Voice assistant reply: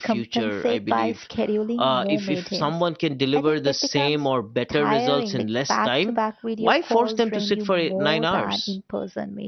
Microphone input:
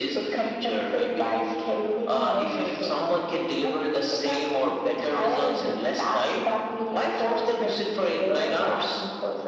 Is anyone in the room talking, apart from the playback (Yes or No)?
No